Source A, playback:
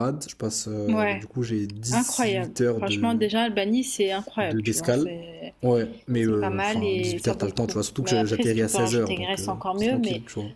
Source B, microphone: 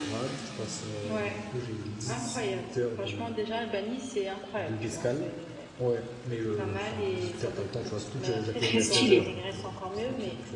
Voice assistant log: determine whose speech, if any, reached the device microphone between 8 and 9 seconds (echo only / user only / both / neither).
both